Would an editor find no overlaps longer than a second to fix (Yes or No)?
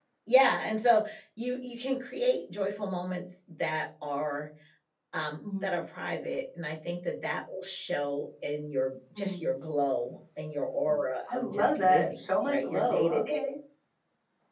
No